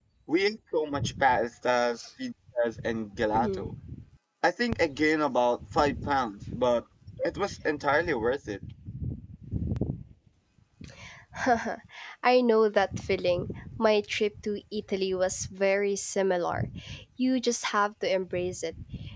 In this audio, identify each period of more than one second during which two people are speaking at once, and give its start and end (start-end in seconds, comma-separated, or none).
none